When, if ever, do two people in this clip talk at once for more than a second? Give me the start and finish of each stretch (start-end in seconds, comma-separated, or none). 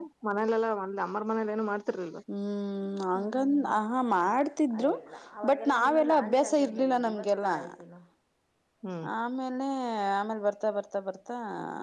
none